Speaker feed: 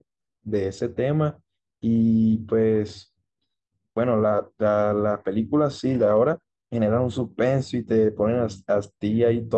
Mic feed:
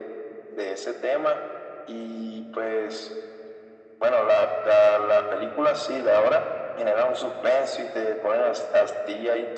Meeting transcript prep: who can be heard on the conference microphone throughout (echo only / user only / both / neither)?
echo only